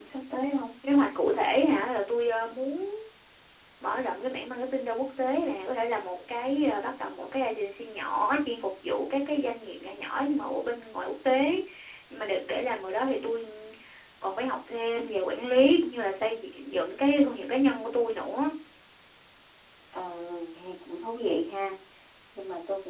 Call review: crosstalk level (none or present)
none